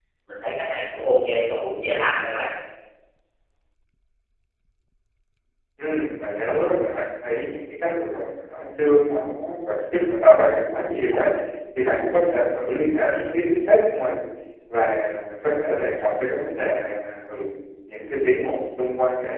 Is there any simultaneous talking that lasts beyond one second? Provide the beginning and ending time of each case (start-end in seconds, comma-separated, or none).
none